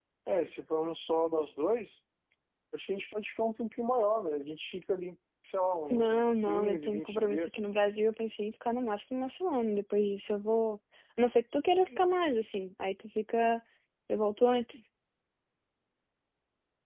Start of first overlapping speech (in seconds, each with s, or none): 5.9 s